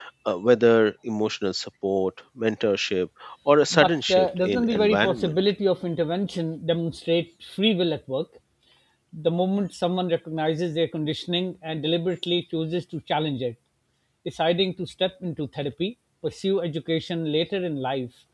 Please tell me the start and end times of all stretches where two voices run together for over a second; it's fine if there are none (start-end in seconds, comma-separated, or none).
3.7-5.3